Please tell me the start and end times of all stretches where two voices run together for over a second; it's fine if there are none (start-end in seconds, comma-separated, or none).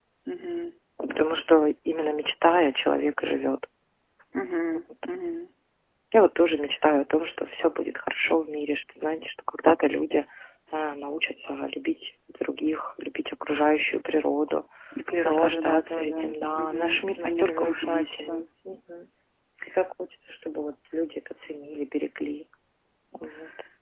15.2-18.4